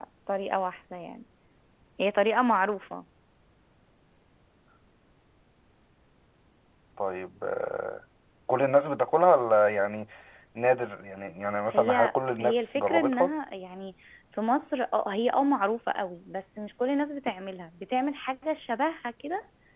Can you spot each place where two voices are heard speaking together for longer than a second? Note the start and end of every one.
11.7-13.3

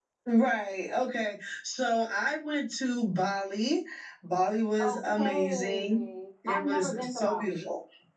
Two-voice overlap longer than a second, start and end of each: 4.8-6.0, 6.5-7.7

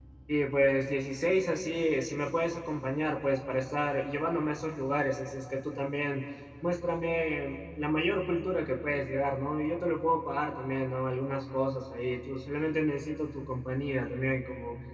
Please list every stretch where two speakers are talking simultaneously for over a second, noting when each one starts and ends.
none

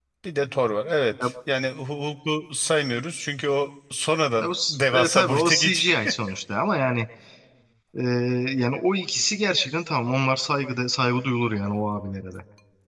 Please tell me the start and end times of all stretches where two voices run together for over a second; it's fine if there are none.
4.4-5.8

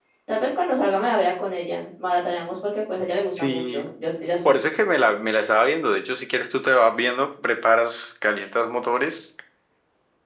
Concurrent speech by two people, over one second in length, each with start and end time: none

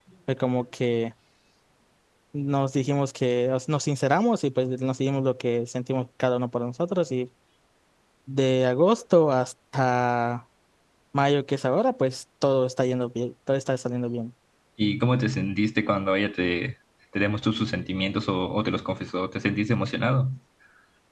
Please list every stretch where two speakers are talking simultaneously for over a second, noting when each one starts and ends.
none

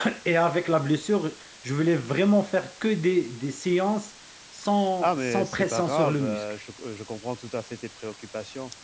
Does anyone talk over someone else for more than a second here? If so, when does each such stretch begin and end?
5.0-6.4

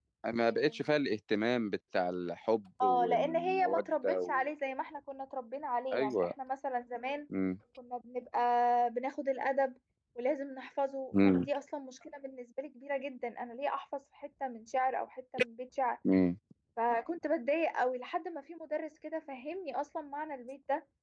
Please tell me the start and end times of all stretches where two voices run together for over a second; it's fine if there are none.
2.8-4.5

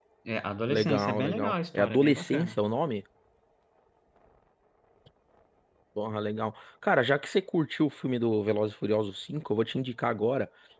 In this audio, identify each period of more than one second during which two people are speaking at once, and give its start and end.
0.7-2.6

